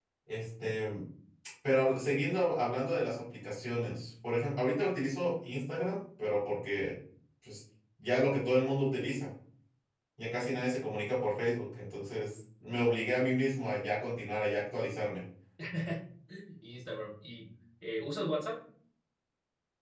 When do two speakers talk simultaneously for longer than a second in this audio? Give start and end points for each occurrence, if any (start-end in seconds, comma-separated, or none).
none